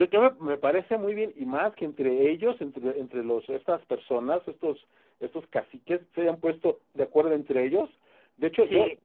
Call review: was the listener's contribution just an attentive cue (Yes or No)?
Yes